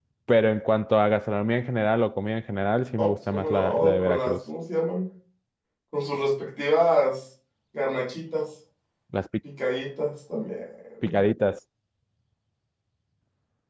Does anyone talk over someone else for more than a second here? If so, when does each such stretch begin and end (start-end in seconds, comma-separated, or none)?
3.0-4.4